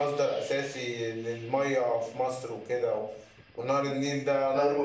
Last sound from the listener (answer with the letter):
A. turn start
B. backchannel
B